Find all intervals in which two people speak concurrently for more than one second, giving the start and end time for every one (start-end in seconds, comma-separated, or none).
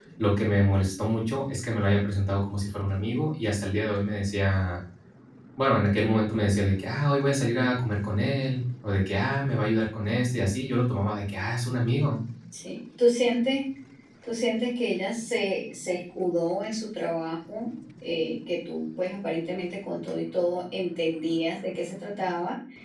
none